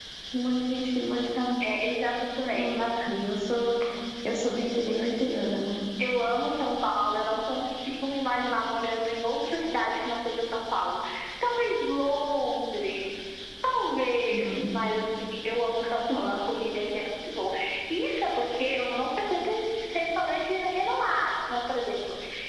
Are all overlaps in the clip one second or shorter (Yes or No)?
Yes